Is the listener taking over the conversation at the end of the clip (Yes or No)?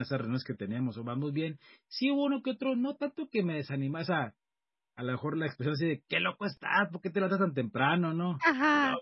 No